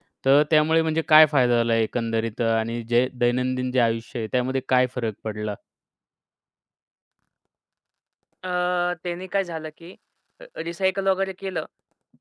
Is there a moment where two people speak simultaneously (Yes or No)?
No